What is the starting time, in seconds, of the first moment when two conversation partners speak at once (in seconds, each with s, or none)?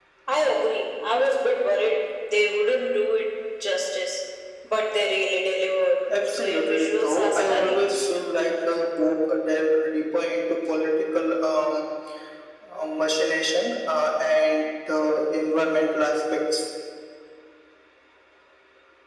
6.4 s